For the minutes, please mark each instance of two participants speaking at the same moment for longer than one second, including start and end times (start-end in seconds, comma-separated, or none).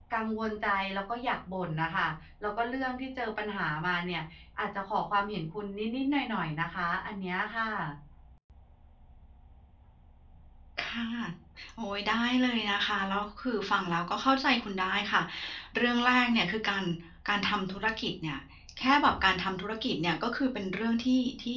none